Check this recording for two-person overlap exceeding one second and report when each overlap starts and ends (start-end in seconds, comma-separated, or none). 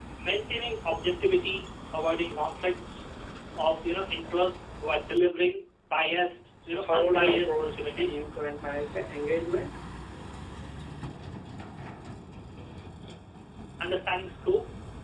6.7-8.2